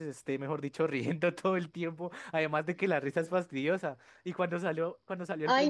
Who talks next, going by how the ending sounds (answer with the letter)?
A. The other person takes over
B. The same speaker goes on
A